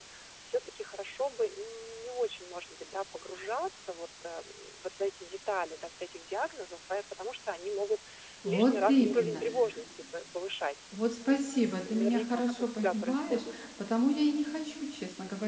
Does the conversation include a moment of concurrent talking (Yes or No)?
Yes